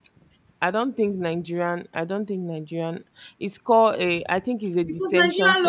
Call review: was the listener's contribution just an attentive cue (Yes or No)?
No